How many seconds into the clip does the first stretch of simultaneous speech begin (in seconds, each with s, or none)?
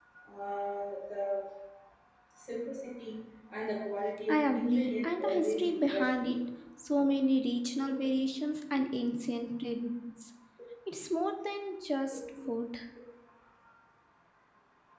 4.3 s